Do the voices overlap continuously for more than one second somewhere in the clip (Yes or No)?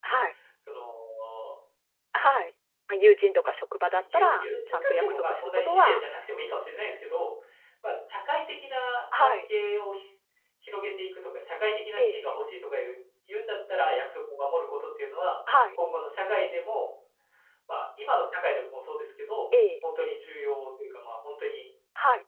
Yes